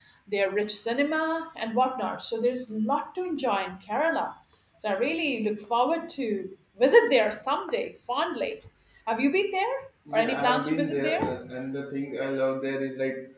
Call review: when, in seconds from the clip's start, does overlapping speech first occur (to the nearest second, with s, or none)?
10 s